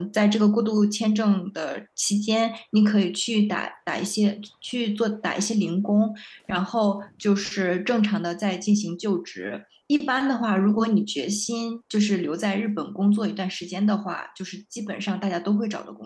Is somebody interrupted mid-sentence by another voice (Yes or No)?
No